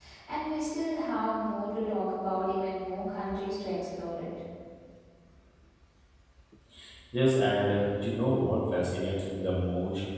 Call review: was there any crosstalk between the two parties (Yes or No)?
No